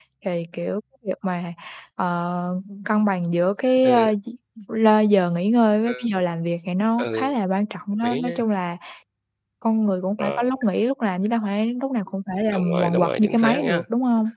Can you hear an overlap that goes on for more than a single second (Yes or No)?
Yes